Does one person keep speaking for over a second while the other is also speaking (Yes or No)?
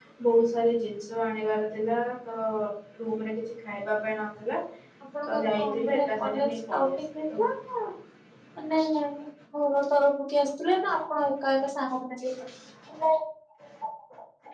Yes